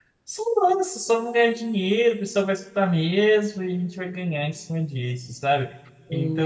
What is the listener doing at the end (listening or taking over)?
listening